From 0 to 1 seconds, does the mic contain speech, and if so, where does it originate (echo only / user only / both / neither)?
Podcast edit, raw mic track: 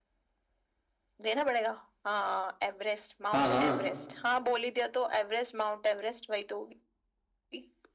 neither